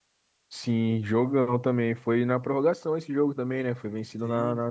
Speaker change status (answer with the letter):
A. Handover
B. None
A